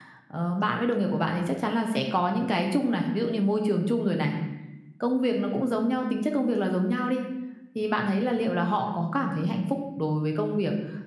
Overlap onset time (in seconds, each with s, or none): none